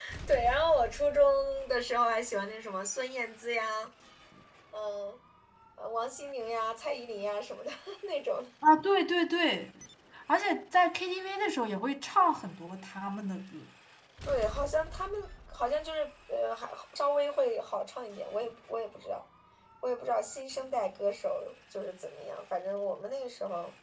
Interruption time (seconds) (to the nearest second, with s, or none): none